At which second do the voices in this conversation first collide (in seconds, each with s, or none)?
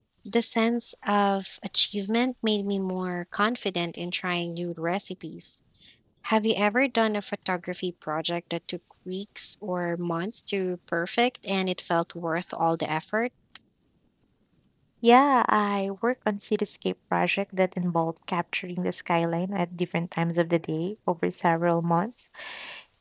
none